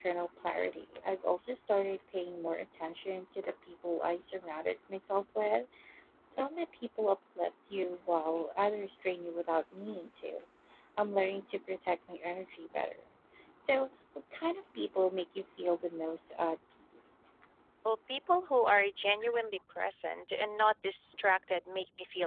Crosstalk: none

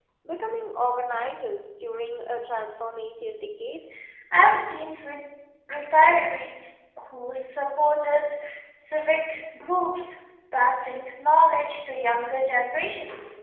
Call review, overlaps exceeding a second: none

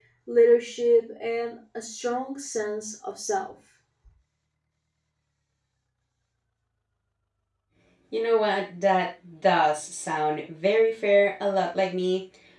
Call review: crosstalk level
none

